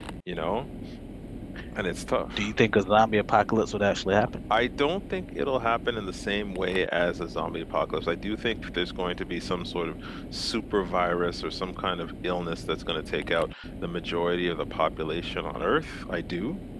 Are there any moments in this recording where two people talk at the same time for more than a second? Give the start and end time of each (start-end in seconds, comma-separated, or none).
none